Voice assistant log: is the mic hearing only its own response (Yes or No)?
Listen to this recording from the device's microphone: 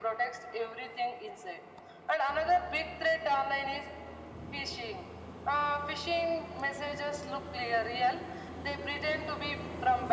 Yes